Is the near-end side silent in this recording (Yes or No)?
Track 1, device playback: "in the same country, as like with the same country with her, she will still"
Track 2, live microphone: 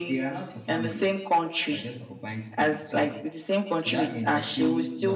No